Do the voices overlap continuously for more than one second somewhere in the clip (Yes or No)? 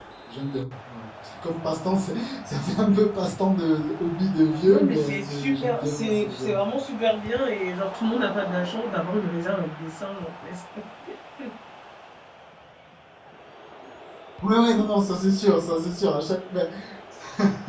Yes